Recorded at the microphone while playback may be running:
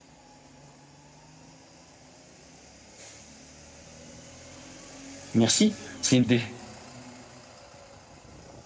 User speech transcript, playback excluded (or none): Merci. C'est une dé-